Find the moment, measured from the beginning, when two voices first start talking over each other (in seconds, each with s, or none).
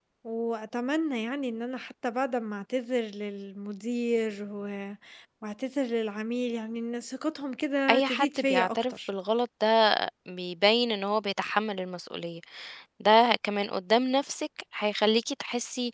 7.9 s